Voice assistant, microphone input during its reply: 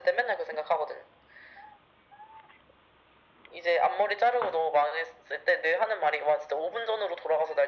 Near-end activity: none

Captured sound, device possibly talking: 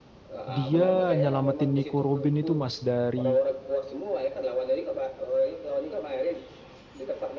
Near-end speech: present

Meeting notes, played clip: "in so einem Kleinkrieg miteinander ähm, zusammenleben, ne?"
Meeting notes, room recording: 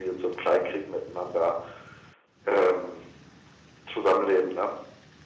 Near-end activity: none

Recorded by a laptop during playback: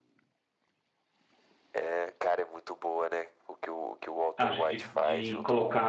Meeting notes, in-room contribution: present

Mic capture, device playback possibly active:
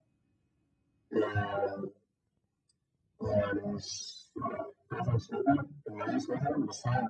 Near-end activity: none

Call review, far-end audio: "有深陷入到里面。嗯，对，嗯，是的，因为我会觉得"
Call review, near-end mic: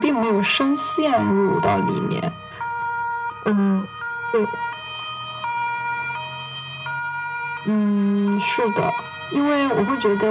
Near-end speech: none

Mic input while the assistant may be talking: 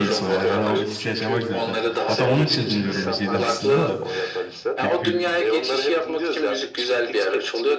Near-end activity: present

